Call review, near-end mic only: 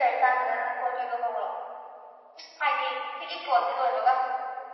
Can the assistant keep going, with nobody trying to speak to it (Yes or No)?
Yes